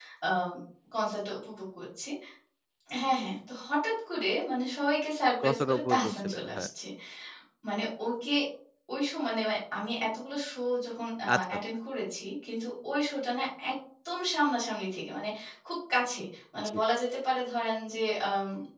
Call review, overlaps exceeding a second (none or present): present